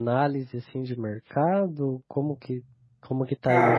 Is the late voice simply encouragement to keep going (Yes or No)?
Yes